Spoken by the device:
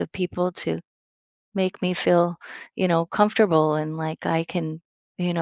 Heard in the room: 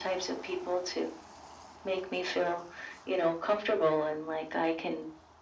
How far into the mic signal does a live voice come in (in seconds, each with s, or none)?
none